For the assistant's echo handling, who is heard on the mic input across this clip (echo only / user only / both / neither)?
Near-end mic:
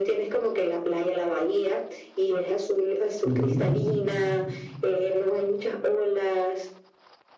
both